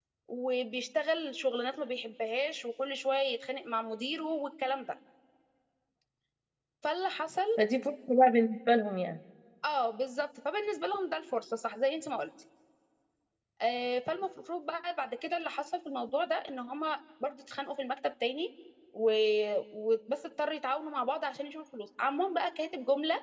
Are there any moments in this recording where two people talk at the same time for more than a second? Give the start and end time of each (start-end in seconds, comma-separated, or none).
none